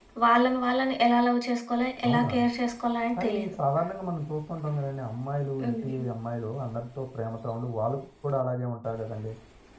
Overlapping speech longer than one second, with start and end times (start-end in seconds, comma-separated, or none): none